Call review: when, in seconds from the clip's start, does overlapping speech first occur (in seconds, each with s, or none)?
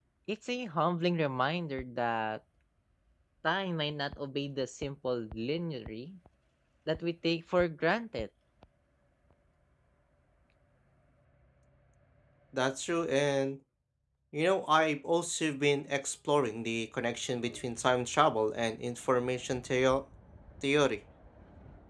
none